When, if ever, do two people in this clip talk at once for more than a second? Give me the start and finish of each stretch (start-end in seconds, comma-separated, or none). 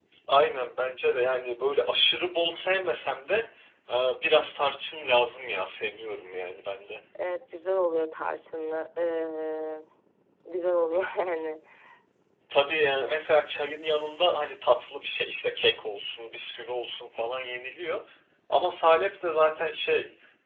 none